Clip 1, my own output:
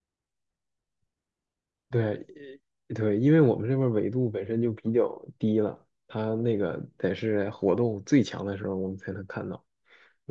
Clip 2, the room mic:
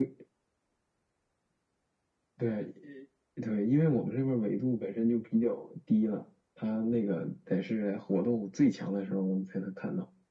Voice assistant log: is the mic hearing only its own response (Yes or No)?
Yes